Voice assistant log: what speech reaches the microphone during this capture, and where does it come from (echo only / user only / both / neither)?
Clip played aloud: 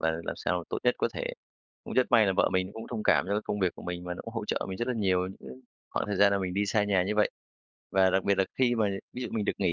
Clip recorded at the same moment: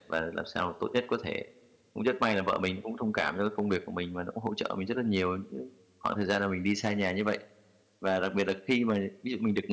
echo only